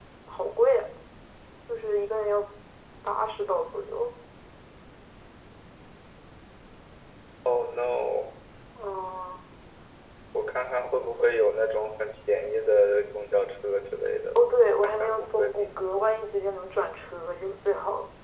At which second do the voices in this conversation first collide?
14.8 s

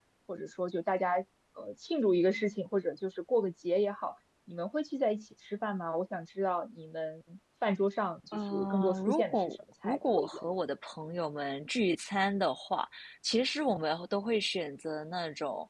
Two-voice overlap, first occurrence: 8.3 s

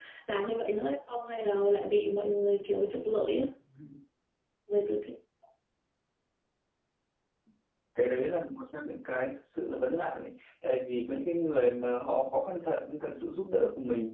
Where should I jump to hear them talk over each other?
none

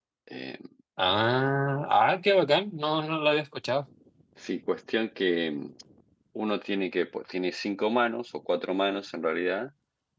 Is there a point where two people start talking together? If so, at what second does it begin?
none

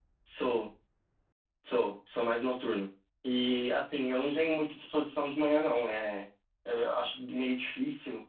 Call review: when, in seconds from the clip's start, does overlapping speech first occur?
none

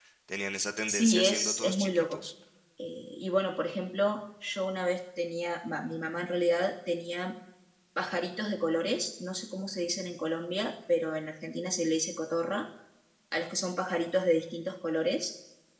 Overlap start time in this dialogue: 0.9 s

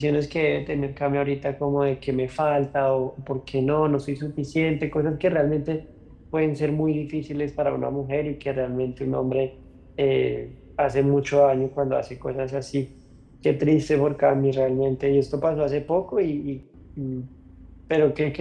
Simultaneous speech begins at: none

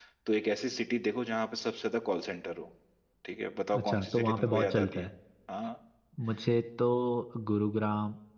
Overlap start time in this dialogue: 3.8 s

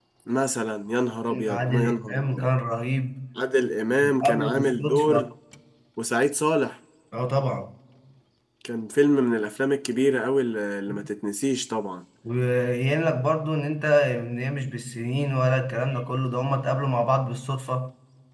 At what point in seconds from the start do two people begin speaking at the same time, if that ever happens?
1.3 s

